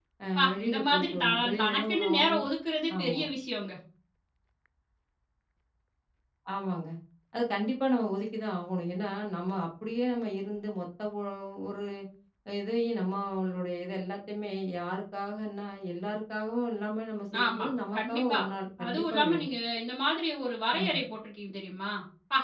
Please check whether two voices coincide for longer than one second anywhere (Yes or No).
Yes